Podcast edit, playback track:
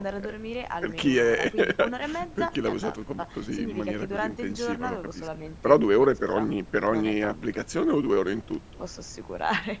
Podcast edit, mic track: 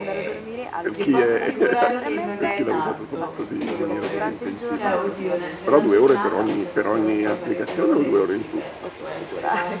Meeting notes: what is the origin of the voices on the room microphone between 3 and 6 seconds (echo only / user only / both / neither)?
both